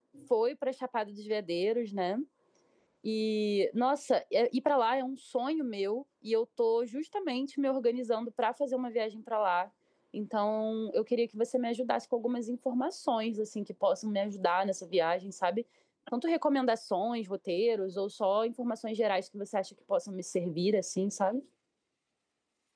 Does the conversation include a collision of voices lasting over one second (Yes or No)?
No